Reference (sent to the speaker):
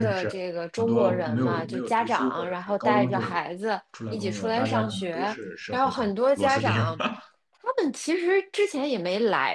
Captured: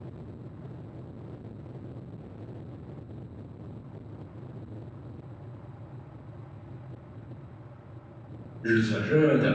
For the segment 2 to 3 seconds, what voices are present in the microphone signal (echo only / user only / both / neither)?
neither